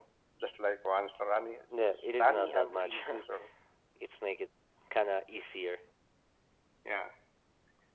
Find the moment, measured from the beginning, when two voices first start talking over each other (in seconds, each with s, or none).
1.7 s